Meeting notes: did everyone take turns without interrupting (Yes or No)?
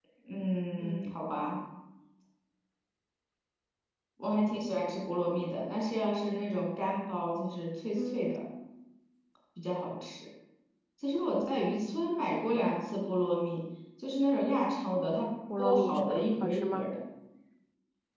No